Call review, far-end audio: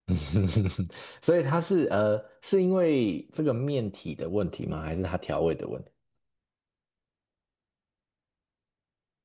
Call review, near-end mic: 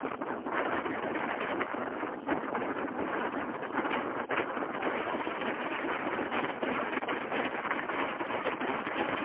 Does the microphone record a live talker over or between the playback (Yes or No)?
No